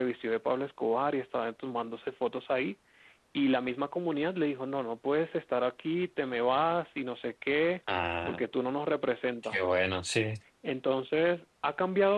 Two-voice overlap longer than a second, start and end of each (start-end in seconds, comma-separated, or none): none